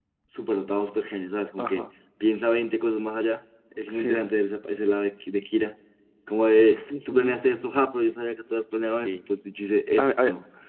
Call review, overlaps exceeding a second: none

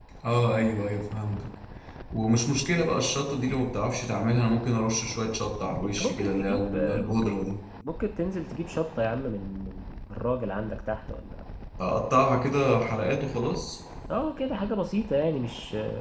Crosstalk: present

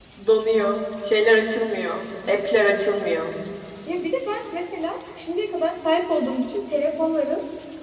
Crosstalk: none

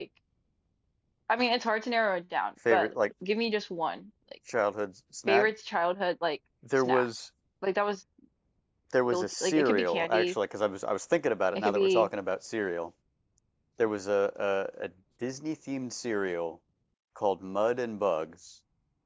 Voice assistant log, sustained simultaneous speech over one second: present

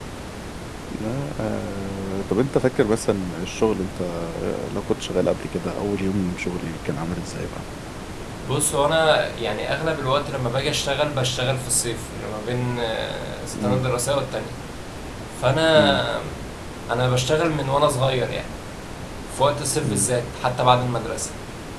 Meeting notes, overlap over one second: none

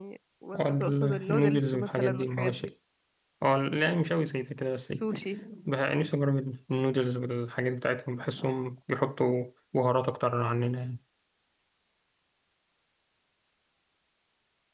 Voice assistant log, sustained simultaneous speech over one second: present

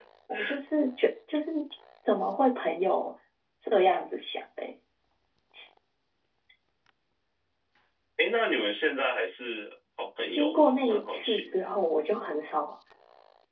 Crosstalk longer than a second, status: present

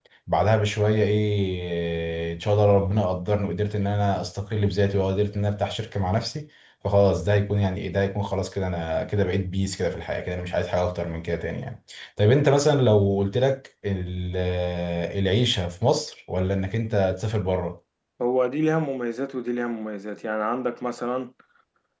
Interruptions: none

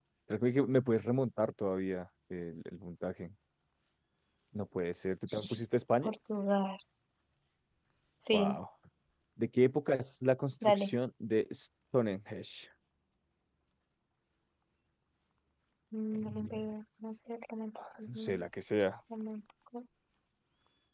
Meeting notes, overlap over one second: none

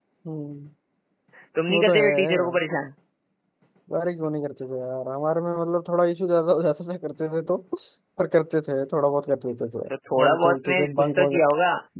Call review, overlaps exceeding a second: present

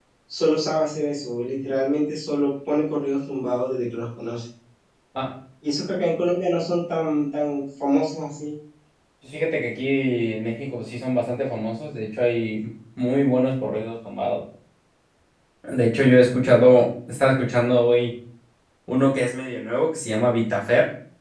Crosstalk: none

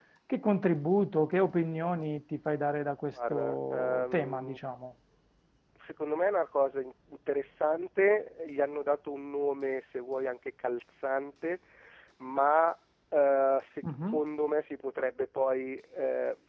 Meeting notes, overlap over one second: present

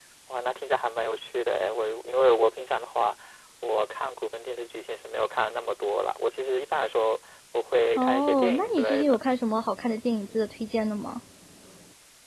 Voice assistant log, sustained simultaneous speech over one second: present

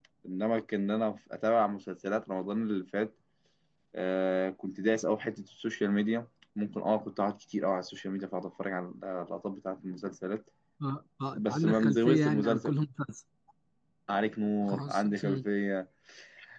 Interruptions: present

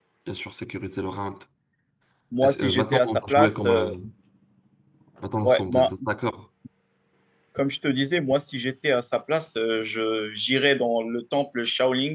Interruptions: present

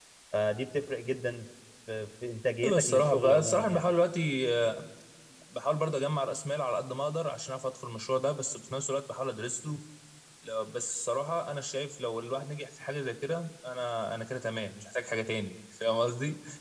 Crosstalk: present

